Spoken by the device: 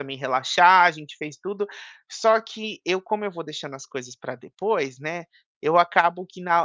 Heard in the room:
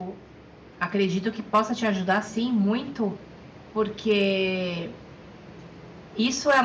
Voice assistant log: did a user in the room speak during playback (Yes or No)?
Yes